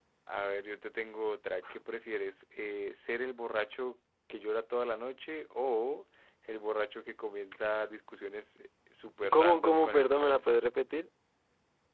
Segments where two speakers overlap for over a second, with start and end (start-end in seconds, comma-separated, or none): 9.3-10.5